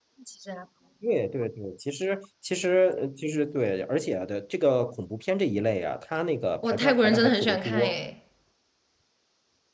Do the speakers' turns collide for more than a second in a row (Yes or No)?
Yes